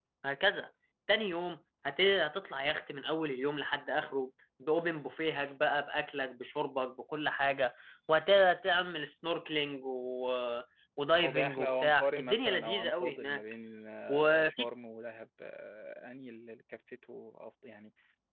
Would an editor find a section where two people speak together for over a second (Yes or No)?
Yes